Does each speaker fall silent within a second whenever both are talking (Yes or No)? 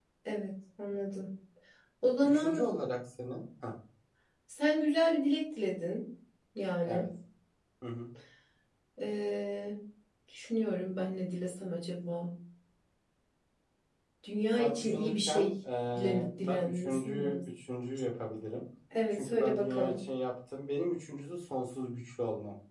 No